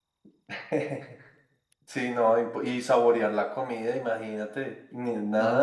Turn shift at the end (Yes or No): Yes